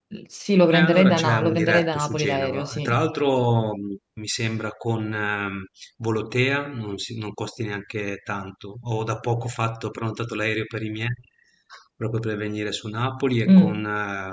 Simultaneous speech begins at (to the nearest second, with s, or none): 1 s